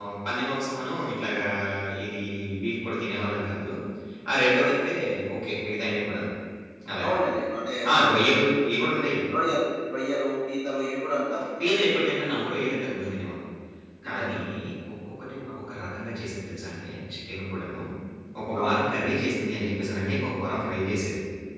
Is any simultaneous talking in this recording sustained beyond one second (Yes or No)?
No